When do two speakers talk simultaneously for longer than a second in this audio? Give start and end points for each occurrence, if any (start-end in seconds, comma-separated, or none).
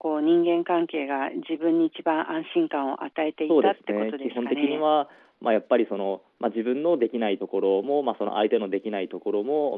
3.5-4.8